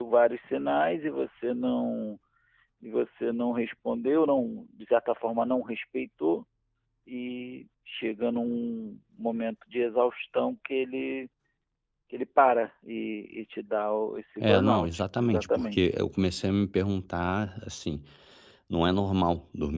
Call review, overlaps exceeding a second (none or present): present